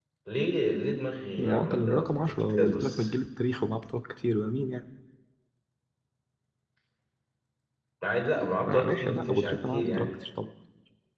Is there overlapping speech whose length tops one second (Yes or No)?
Yes